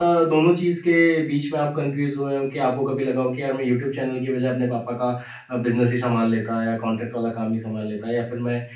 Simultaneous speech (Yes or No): No